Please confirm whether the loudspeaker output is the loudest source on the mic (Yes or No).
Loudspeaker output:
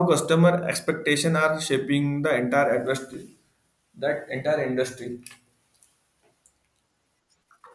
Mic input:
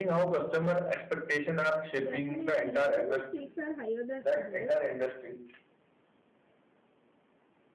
Yes